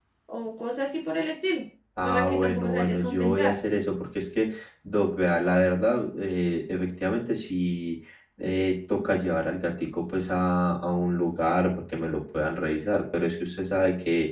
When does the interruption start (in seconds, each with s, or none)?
2.0 s